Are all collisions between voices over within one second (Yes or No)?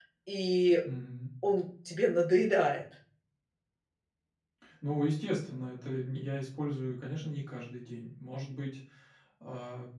Yes